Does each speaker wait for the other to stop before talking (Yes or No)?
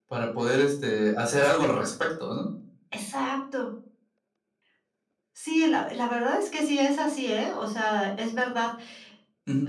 Yes